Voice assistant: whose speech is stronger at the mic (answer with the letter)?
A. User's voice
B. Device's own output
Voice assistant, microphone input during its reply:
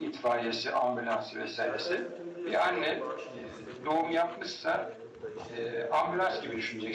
B